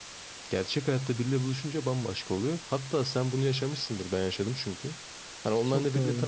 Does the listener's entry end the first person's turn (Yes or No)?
No